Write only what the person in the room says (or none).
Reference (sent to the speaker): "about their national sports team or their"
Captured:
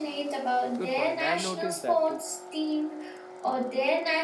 Good point. I've noticed that too.